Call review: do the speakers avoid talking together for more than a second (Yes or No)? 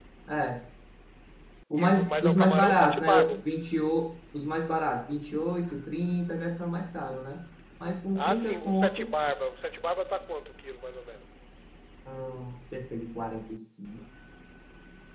No